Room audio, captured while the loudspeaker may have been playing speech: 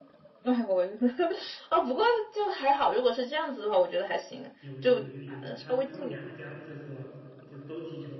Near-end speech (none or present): present